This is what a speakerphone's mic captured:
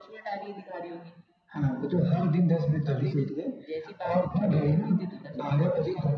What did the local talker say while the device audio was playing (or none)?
none